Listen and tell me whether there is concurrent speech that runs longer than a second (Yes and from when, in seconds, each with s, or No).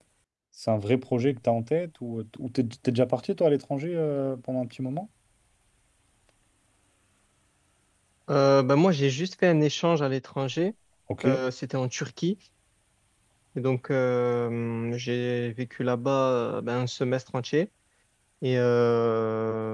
No